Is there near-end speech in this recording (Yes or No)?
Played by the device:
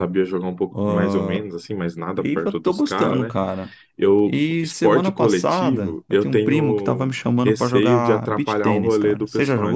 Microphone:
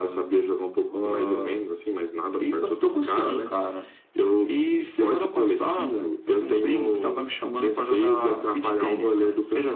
No